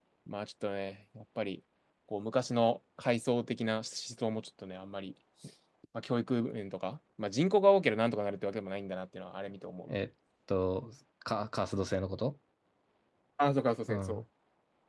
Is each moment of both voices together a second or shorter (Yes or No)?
Yes